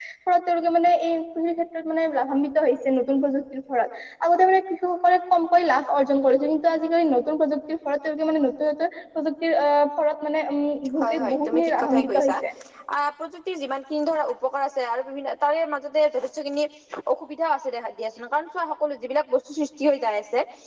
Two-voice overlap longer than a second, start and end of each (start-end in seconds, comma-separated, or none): 11.0-12.3